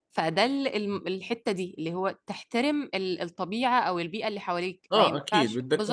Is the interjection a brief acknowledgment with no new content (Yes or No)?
No